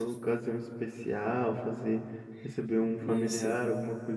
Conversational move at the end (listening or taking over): listening